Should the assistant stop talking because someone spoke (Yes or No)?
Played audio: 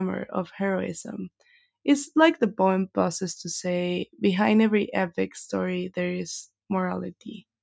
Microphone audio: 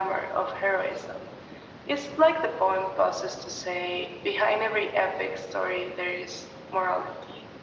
No